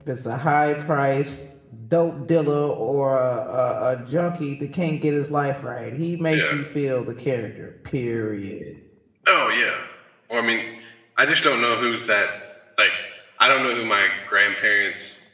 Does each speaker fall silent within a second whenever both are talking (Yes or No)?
Yes